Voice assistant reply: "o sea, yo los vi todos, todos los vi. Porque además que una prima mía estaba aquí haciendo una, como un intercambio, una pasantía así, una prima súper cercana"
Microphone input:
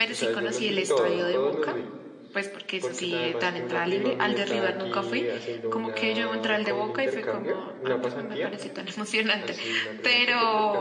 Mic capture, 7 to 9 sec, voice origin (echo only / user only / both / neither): both